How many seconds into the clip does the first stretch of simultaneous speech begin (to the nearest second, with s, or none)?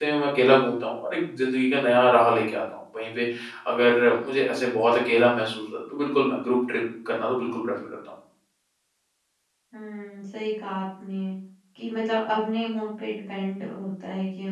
none